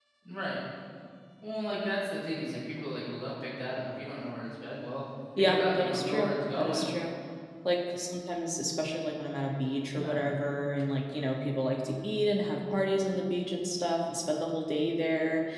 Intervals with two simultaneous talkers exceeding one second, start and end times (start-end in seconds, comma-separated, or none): 5.4-6.9